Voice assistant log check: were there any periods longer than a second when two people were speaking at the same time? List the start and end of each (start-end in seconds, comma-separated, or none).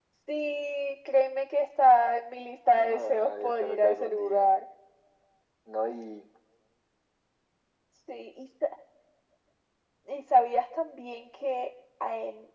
2.8-4.5